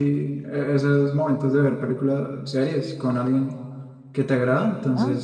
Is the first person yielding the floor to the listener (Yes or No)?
No